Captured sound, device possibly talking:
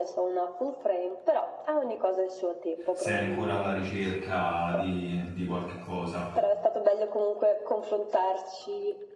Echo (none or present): present